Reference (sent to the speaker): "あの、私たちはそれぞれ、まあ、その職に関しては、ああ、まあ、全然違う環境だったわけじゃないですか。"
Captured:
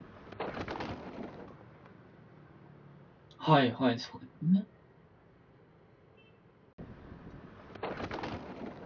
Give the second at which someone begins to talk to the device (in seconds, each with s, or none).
3.4 s